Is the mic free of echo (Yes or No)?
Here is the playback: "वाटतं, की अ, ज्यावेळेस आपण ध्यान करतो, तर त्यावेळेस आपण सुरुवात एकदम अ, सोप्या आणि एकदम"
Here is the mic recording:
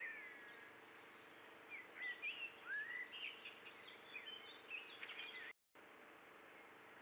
Yes